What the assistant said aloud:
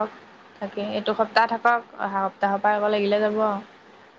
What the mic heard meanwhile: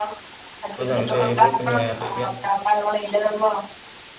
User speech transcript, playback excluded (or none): য এ এইবোৰন্ধ ইয়াত